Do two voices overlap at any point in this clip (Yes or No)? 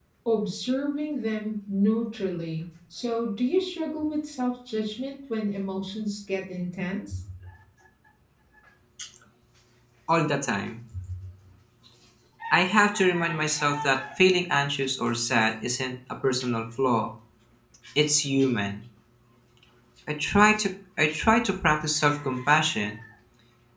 No